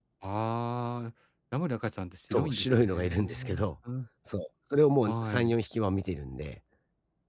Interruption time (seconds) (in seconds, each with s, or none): 2.3 s